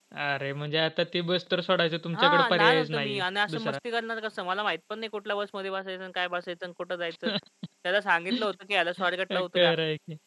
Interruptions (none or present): present